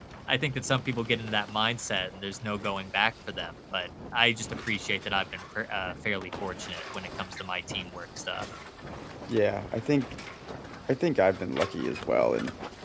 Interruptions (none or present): none